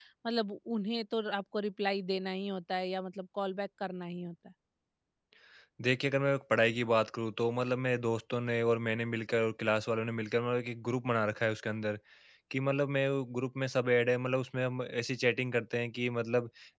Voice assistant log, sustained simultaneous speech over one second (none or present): none